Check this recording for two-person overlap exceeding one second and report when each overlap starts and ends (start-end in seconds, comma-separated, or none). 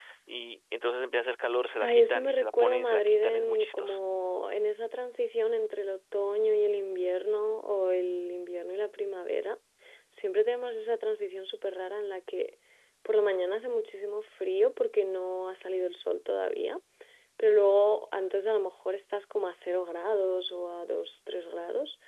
1.8-4.0